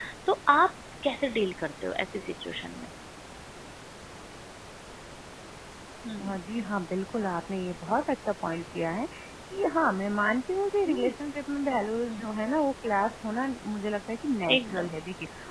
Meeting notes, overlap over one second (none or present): none